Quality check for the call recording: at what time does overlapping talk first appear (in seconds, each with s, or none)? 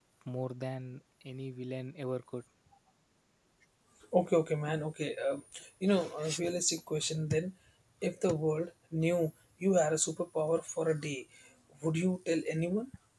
none